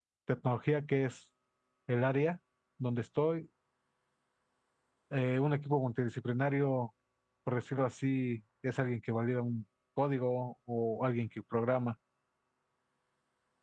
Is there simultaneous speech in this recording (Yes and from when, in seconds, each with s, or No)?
No